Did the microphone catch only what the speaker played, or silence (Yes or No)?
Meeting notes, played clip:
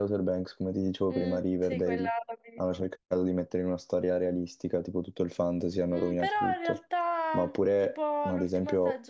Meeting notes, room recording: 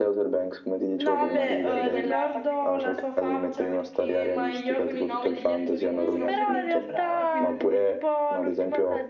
No